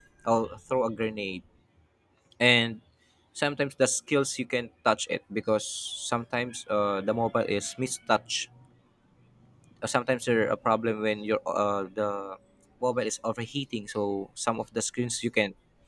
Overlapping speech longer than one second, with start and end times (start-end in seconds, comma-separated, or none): none